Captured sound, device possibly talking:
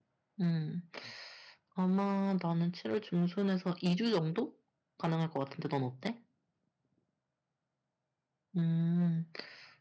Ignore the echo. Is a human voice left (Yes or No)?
Yes